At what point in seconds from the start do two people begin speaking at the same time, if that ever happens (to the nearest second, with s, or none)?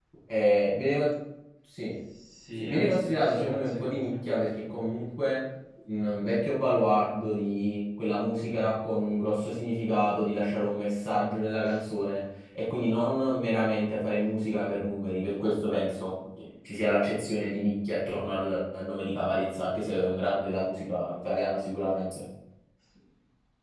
3 s